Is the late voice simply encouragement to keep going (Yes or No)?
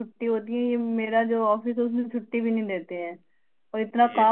Yes